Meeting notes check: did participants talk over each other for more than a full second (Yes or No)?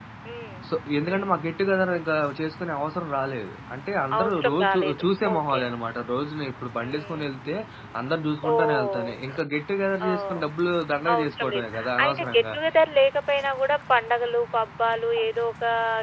Yes